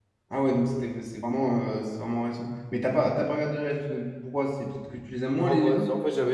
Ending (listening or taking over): taking over